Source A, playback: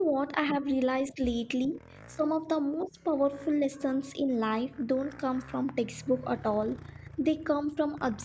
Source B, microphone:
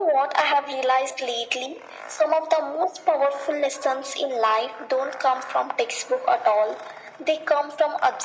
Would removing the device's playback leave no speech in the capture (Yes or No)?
Yes